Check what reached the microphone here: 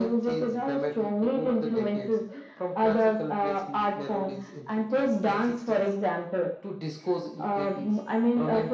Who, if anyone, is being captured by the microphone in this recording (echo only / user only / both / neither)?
echo only